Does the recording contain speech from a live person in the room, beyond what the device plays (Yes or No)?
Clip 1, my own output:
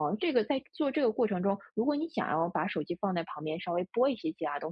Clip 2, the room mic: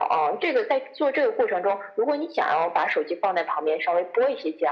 No